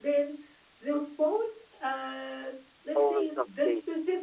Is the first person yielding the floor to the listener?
No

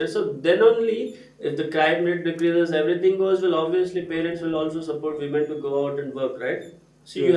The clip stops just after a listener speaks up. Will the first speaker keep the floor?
Yes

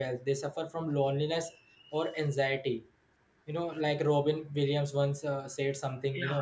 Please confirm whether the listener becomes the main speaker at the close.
No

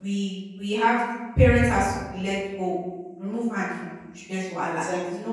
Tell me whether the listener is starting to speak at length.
No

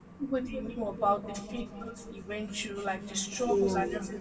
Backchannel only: Yes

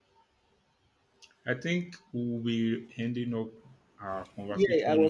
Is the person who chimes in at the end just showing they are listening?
No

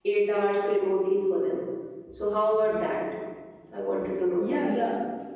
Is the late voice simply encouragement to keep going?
No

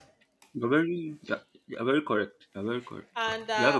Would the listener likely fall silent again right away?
No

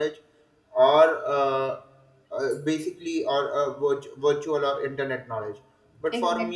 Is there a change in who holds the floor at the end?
No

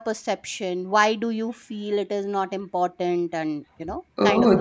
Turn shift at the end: Yes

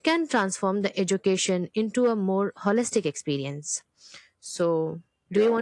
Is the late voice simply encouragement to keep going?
No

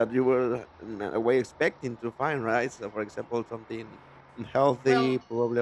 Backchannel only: Yes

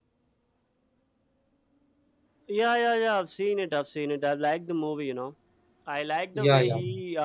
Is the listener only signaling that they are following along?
Yes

